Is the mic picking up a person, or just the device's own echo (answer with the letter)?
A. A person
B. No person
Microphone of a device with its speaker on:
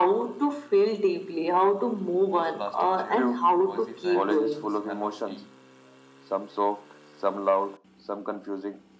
A